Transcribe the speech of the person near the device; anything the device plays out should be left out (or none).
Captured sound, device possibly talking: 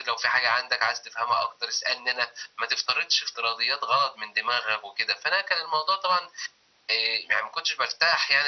none